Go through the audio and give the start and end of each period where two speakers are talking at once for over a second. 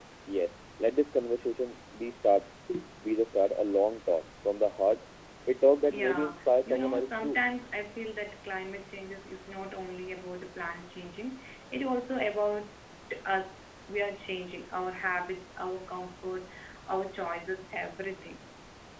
5.9-7.4

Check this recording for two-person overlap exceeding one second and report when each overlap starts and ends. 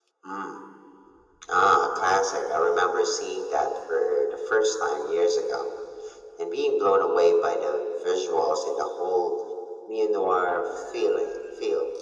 none

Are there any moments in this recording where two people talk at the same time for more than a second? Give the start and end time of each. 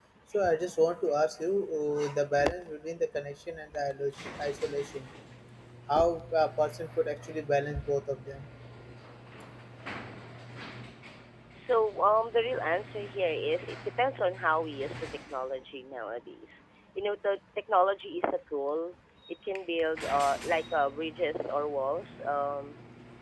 none

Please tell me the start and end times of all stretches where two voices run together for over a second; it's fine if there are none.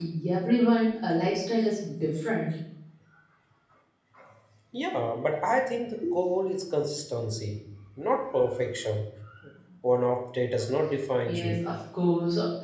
none

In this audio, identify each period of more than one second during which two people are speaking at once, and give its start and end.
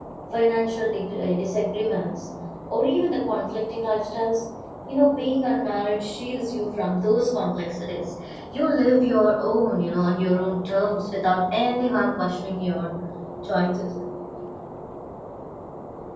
none

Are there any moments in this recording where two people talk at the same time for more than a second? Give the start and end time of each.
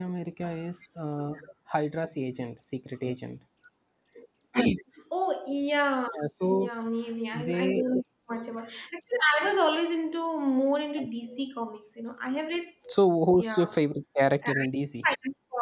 none

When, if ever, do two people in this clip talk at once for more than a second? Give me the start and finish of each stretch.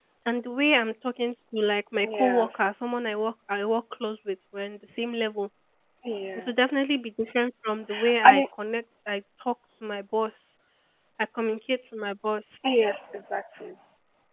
none

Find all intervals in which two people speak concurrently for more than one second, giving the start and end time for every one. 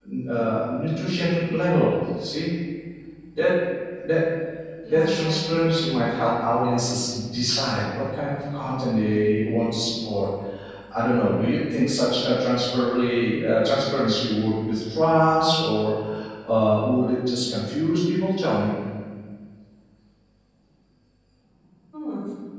4.9-6.2

